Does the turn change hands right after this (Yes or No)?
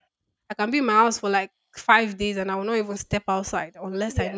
Yes